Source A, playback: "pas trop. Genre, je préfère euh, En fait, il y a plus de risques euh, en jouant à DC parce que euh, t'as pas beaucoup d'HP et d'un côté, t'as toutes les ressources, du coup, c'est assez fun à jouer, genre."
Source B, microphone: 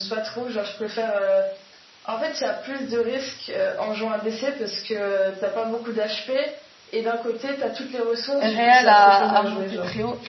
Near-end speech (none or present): present